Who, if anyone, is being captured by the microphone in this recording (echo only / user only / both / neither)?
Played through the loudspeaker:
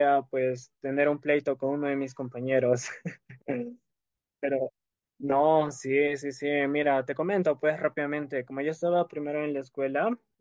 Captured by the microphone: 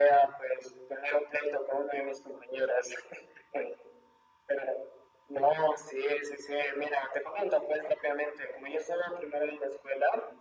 echo only